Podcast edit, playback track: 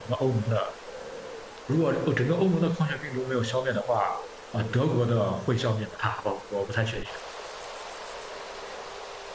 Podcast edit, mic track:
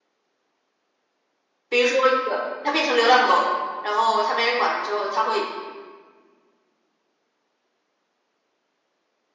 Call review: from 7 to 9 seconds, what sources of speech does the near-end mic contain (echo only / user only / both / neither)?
neither